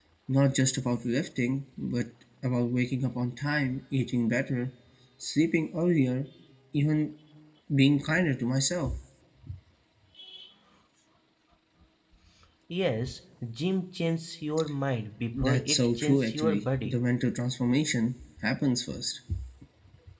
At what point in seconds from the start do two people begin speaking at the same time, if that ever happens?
15.3 s

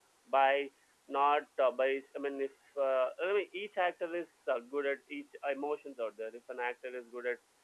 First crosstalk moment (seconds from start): none

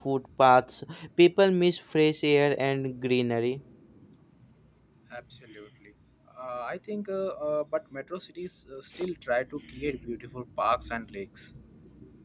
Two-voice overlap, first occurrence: none

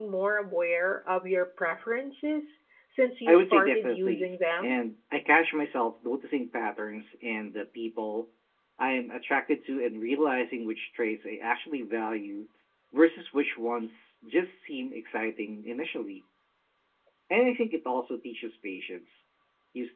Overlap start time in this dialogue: 3.3 s

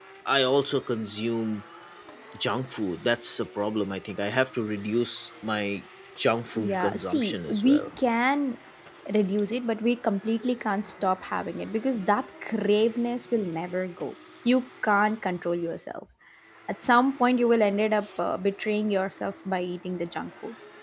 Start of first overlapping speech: 6.6 s

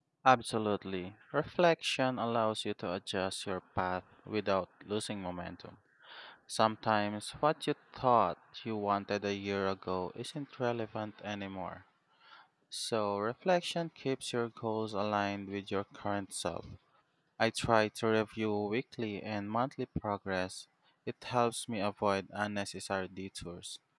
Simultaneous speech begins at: none

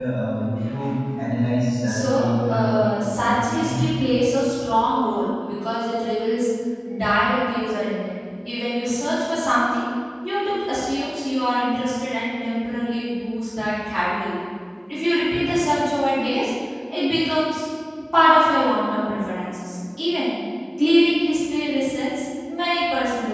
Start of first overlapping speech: 1.8 s

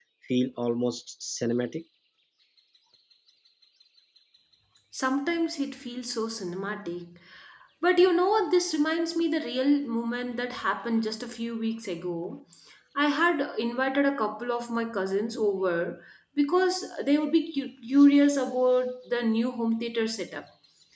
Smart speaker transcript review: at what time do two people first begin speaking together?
none

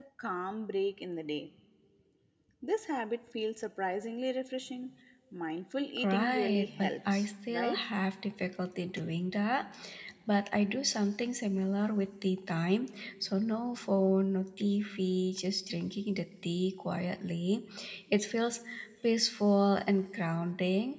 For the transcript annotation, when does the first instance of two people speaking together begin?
6.0 s

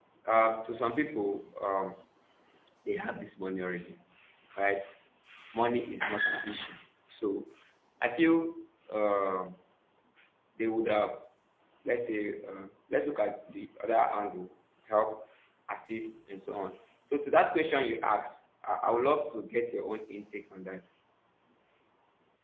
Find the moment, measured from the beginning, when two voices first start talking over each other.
none

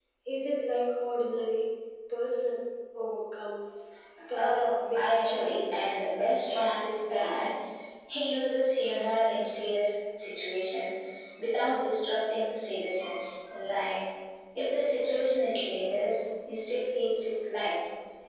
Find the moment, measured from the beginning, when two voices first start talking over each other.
4.3 s

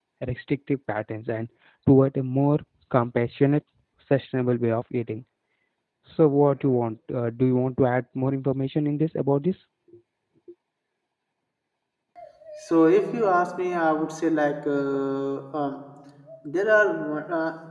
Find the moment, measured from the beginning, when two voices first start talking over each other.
none

